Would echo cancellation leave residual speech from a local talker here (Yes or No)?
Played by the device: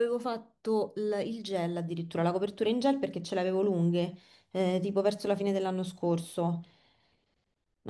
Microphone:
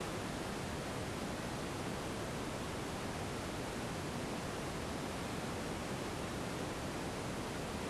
No